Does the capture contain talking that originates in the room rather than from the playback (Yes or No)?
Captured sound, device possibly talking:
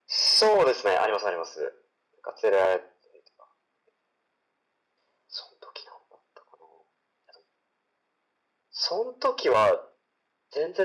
No